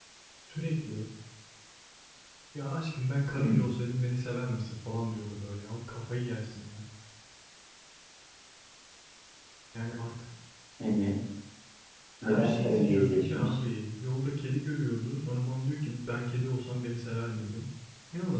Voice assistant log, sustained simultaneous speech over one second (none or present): present